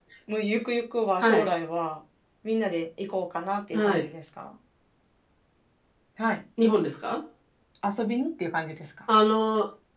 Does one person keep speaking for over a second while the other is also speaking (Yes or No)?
No